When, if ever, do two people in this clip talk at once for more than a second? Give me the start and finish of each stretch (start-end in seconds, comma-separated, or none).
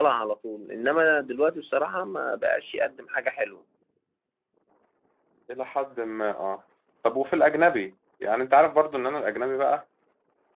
none